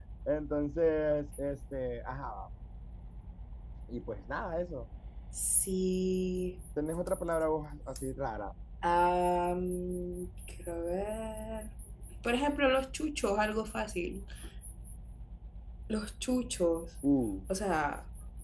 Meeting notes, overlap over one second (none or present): none